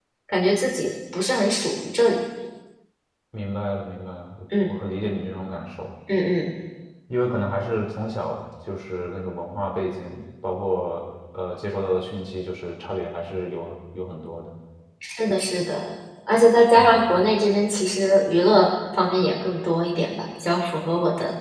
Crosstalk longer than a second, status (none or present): none